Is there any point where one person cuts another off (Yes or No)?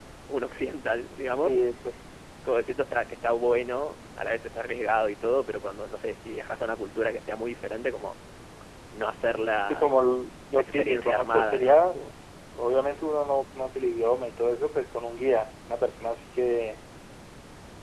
Yes